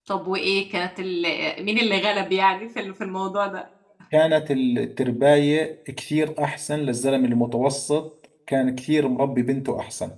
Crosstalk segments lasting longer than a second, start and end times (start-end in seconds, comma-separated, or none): none